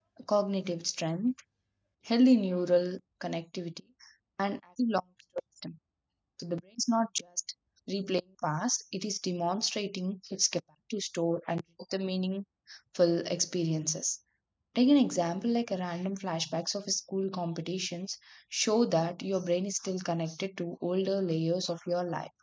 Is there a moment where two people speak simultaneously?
No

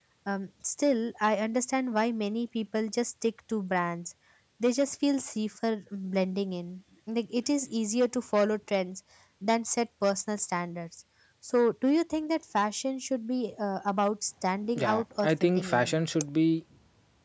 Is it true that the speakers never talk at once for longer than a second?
No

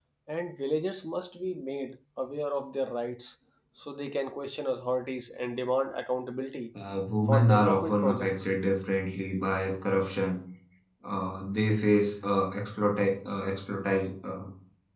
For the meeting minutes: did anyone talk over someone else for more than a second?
Yes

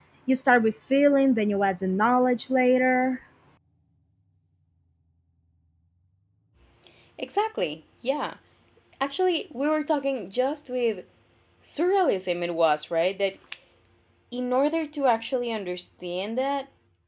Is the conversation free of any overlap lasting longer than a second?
Yes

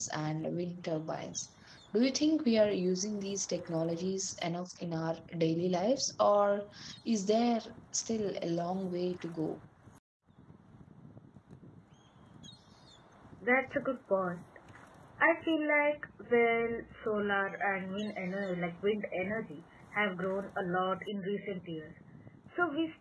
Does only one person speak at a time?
Yes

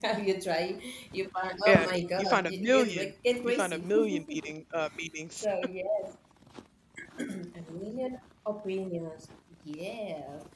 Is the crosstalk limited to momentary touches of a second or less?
No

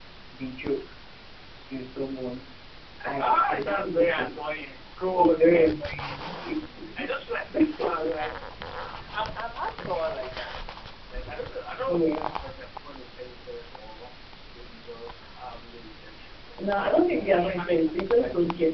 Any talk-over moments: Yes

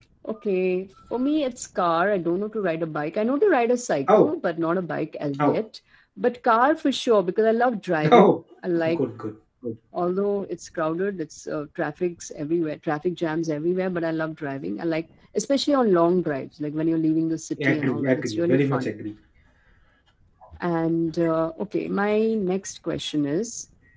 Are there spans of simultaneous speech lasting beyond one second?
Yes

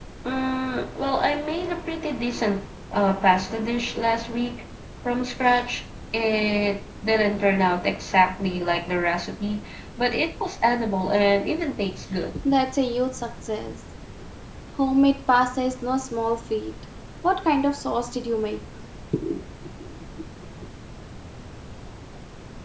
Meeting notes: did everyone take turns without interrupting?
Yes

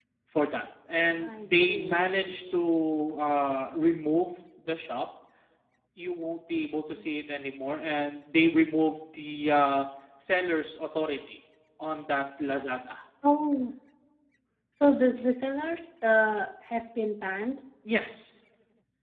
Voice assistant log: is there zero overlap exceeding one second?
No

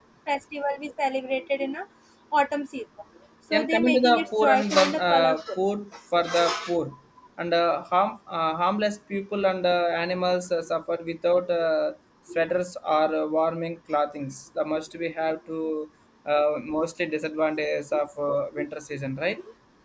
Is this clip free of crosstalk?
No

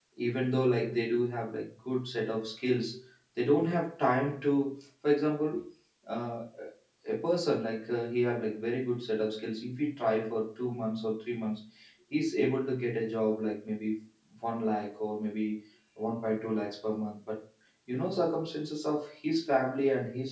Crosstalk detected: No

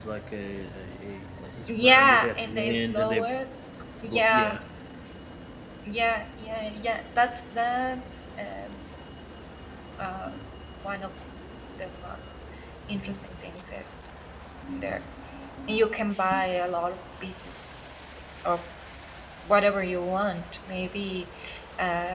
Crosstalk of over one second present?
Yes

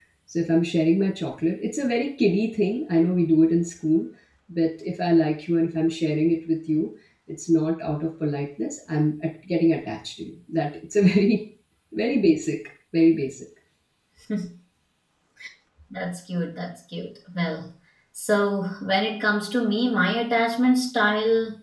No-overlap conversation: Yes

